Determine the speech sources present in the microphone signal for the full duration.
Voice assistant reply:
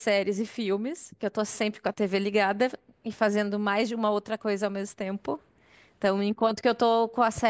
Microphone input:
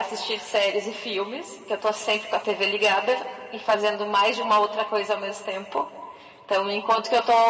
echo only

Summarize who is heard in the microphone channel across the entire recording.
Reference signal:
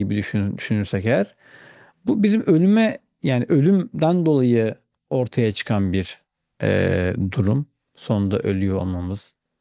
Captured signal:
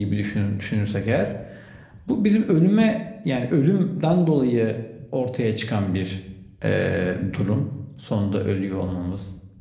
echo only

